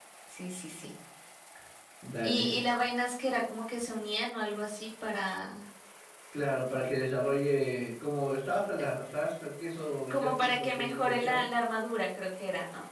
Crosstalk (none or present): present